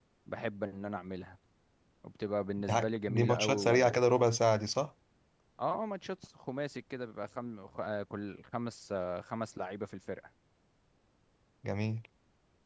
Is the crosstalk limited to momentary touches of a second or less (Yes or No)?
No